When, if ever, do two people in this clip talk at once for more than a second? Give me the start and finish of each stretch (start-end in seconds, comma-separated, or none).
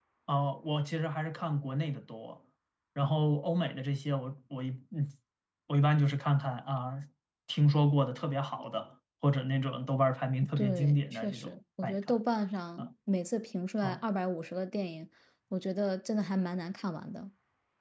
10.6-12.0